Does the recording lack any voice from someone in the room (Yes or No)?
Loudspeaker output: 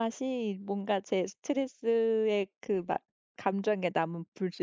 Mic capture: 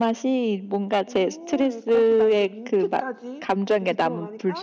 No